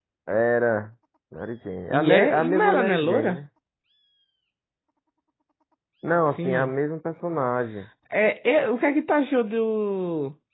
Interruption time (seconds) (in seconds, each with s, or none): 1.9 s